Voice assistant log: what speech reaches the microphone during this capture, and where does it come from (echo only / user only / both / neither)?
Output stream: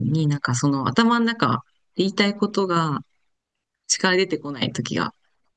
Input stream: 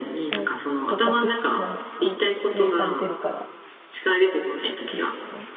both